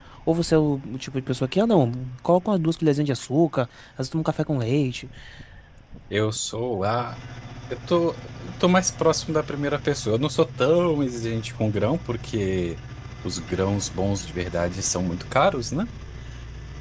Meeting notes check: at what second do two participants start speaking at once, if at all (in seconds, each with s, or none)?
none